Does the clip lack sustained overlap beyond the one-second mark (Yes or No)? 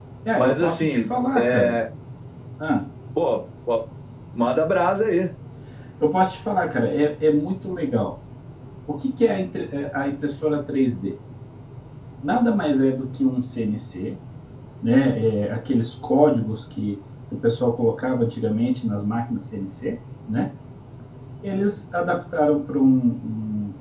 No